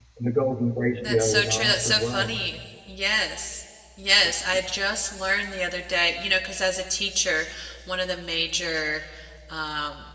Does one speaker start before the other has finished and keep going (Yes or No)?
Yes